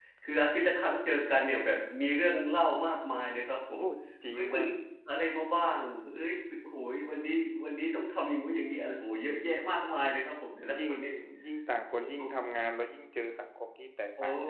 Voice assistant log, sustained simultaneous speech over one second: none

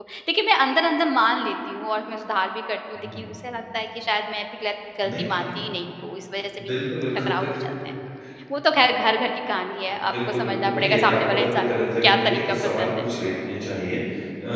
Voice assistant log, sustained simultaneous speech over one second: present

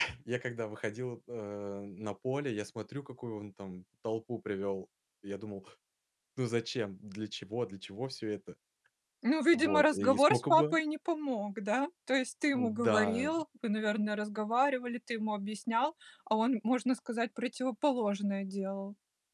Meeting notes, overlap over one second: present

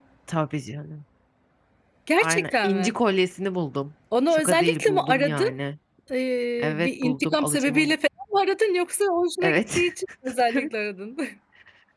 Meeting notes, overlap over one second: present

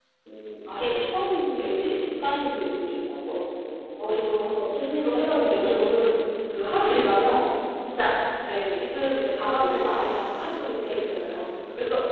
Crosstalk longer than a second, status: present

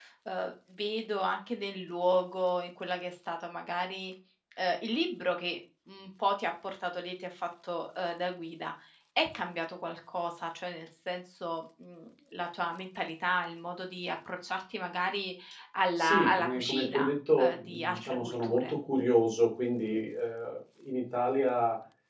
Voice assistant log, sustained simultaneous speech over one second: present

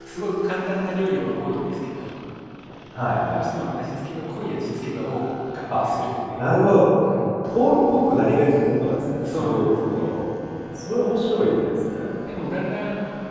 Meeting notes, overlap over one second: none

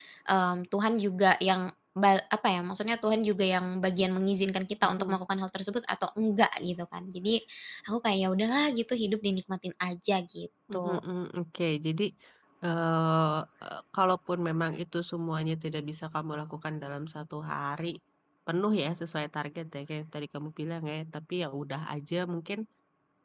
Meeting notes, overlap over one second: none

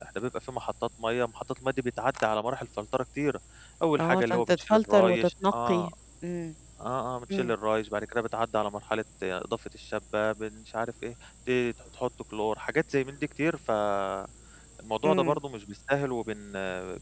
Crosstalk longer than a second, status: present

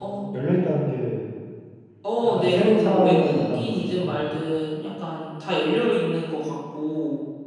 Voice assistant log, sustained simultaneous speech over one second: present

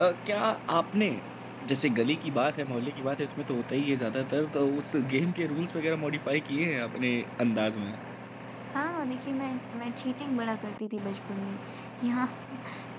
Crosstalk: none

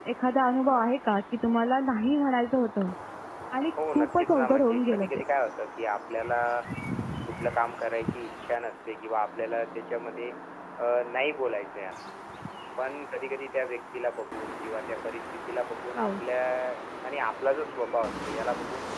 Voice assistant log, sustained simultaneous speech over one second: present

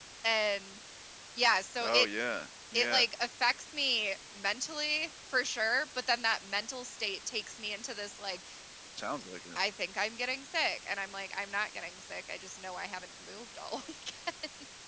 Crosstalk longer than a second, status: none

